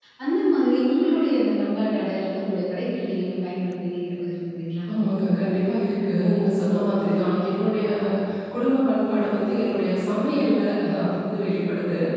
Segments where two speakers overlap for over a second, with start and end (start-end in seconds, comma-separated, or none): none